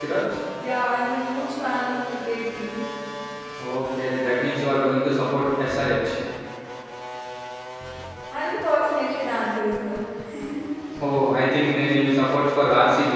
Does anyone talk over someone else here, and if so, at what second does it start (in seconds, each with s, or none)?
none